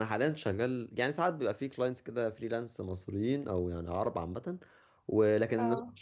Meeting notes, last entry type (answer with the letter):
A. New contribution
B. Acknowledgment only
B